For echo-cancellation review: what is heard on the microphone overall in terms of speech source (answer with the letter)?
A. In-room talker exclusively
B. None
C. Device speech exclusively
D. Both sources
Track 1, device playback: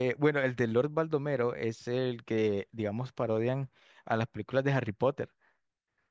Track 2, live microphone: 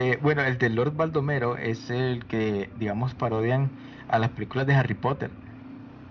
C